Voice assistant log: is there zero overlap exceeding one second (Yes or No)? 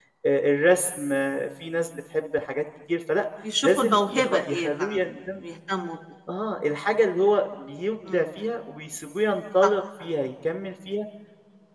No